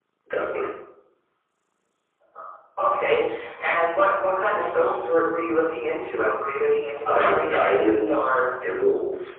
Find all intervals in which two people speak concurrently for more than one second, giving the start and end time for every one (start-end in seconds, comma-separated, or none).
7.1-8.4